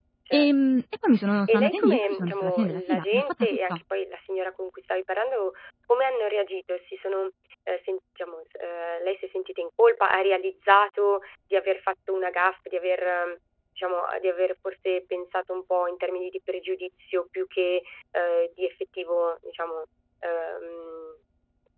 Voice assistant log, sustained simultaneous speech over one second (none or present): present